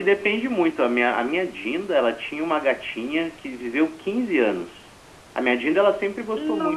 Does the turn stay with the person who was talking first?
Yes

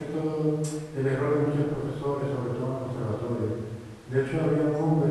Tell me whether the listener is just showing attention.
Yes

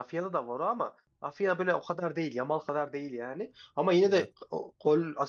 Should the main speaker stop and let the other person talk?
No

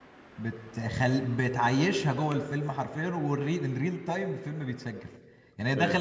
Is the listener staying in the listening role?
Yes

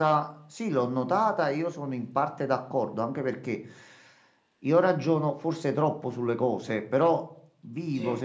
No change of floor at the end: Yes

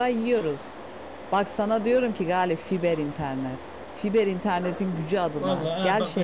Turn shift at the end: Yes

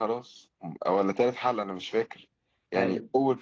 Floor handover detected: No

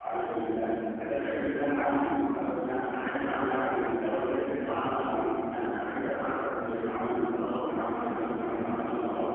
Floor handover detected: Yes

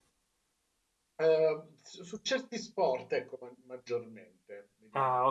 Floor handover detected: Yes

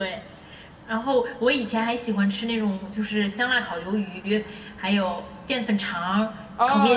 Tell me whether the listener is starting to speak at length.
Yes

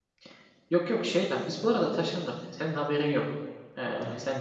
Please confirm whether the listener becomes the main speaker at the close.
No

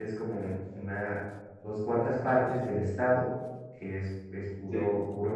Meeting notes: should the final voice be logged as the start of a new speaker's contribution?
No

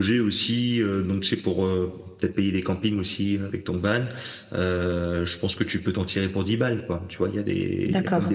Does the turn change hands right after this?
No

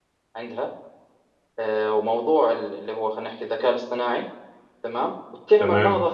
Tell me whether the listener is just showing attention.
Yes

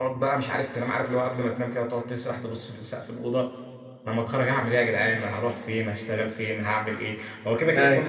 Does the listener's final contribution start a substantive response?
No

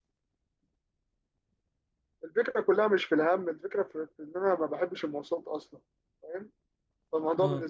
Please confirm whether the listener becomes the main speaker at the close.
No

